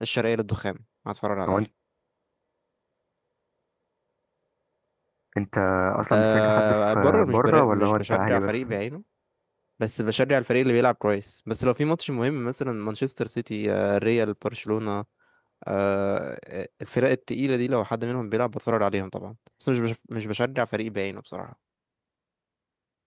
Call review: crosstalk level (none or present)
present